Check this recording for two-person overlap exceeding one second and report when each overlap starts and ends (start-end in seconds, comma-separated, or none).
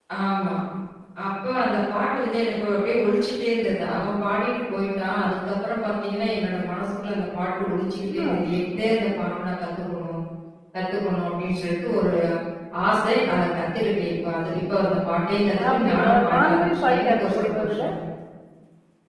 15.7-17.9